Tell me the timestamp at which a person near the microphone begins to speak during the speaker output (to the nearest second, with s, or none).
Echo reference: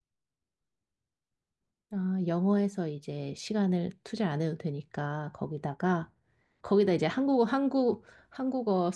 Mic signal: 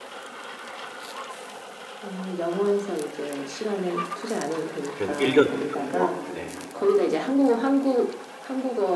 5 s